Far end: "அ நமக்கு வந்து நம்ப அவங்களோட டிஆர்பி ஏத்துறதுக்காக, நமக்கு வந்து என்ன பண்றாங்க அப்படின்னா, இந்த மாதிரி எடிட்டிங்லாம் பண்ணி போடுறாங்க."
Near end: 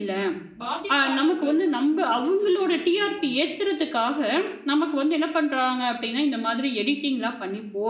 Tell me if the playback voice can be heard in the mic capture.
Yes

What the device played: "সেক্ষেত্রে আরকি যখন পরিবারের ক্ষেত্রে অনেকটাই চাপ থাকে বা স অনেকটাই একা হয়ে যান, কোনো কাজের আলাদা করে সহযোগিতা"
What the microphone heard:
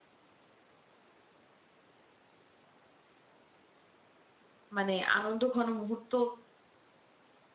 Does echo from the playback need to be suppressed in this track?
No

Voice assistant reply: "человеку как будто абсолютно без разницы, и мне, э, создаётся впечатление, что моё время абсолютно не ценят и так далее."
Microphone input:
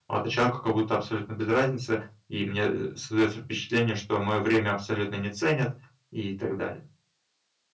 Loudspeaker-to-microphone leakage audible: Yes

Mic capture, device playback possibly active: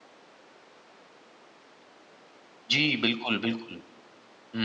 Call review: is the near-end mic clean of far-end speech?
Yes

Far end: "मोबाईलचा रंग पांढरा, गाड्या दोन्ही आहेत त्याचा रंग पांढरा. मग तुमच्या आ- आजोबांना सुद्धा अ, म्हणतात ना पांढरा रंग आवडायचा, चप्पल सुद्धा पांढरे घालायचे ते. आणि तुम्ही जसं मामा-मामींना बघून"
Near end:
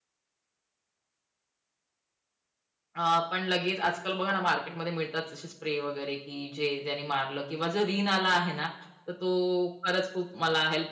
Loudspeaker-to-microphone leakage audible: No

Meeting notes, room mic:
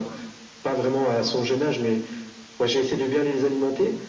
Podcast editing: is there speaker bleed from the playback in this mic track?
Yes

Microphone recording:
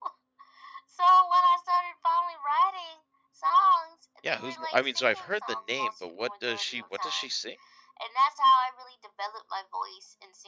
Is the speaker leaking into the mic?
Yes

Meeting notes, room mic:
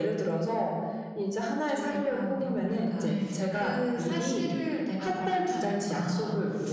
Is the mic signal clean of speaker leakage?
No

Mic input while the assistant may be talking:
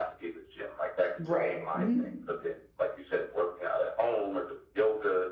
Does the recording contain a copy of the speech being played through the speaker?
Yes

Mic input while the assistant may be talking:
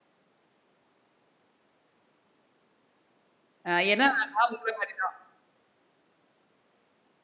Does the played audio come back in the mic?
No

